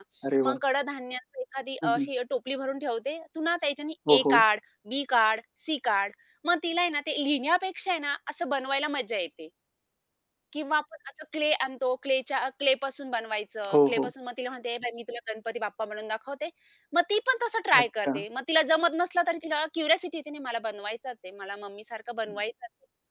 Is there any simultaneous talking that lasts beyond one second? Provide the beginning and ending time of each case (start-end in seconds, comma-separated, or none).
none